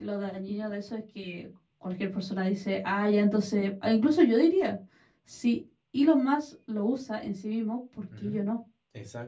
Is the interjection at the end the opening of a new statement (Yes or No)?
Yes